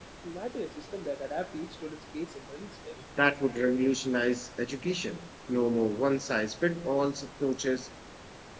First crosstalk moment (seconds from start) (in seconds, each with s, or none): none